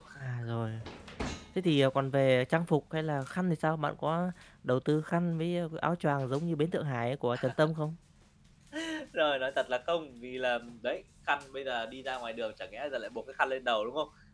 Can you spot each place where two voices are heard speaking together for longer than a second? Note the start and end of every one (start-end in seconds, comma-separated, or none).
none